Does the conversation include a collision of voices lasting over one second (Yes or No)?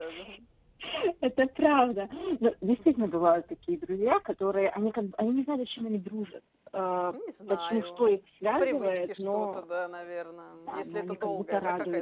Yes